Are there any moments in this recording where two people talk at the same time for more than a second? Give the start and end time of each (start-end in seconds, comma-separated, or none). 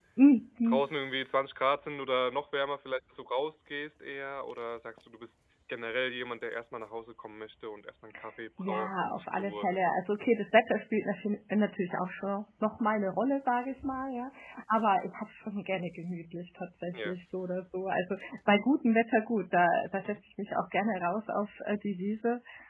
8.6-9.8